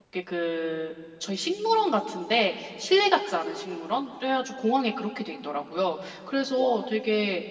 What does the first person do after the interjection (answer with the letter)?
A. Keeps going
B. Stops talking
A